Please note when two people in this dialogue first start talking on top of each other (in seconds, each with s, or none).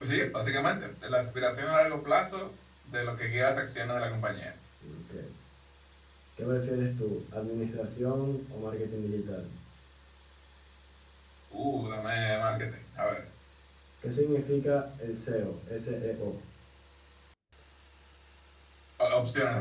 none